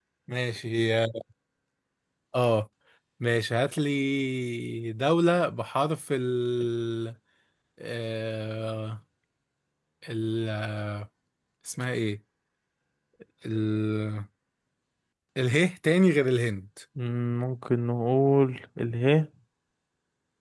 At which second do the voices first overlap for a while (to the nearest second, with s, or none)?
none